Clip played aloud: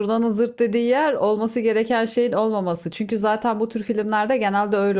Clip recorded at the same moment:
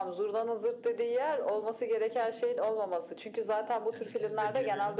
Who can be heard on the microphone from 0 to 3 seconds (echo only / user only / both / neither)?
echo only